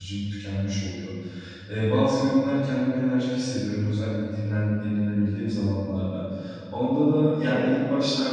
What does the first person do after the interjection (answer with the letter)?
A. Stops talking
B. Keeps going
B